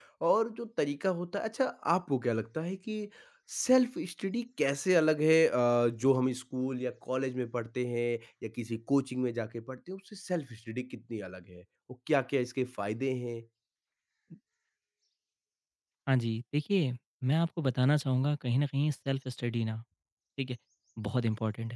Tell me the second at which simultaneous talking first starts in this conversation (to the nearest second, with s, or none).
none